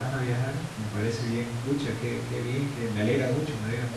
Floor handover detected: Yes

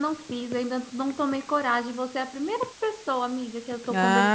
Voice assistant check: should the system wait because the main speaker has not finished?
No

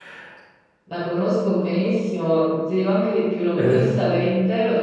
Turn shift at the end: No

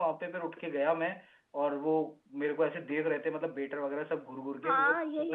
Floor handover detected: Yes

